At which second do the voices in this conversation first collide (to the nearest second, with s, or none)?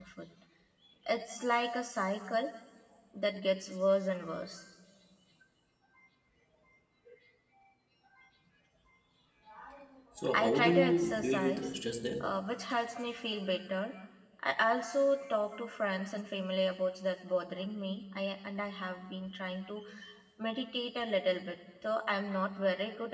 10 s